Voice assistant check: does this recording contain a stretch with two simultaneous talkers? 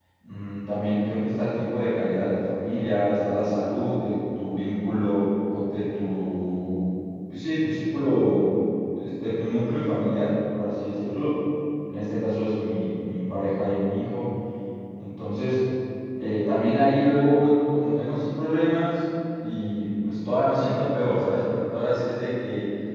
No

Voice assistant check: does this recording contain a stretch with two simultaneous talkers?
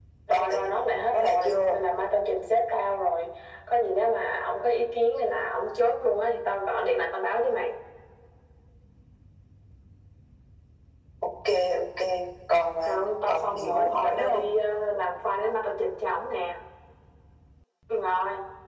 Yes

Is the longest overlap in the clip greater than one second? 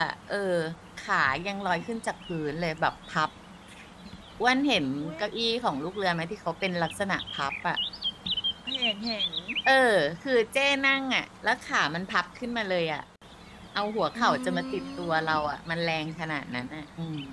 Yes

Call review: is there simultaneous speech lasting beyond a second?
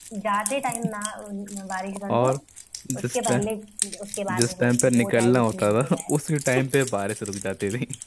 Yes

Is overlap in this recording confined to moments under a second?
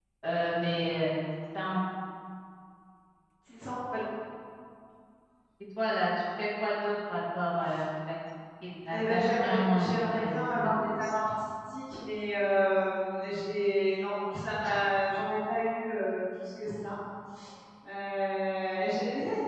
No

